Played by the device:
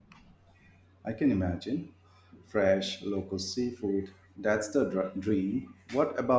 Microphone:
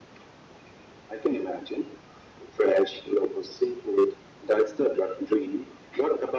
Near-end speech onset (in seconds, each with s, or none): none